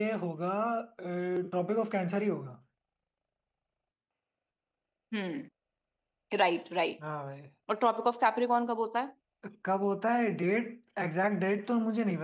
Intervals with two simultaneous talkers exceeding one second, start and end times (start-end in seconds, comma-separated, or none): none